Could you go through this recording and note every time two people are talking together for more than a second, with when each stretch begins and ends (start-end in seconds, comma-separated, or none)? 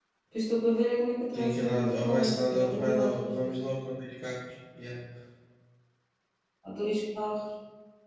1.3-3.6